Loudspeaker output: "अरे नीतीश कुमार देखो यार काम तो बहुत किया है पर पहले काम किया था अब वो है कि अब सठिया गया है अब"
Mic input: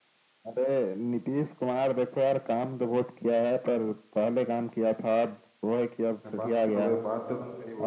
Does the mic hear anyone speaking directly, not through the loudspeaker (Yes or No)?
Yes